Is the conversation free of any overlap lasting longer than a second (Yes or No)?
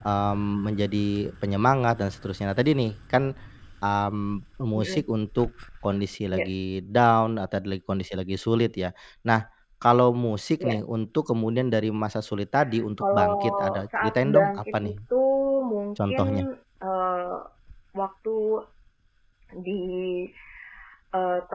No